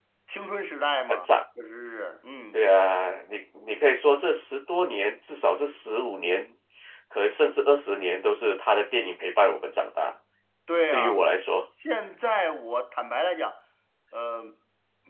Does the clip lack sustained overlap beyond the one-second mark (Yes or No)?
Yes